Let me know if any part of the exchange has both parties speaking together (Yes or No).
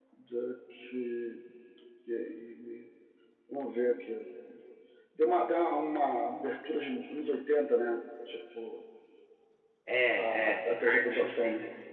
Yes